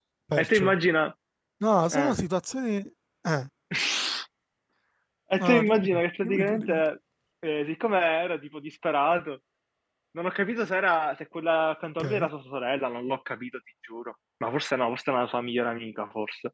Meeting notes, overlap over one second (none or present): present